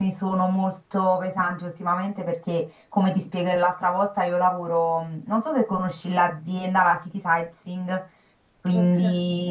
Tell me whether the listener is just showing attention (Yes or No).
No